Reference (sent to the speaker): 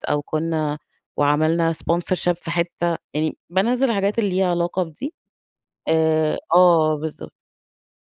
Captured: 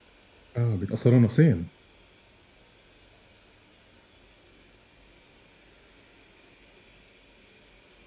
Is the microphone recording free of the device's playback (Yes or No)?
Yes